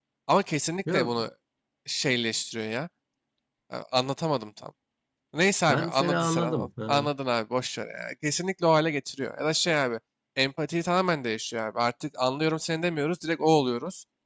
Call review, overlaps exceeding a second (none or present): present